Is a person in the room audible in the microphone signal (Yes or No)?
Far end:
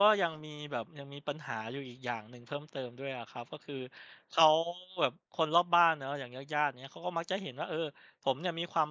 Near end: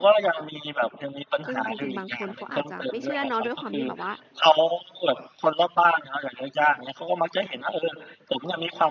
Yes